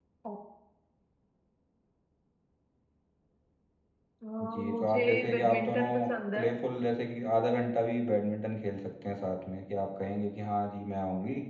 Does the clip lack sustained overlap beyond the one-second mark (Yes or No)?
No